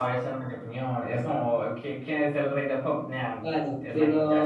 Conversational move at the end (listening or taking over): taking over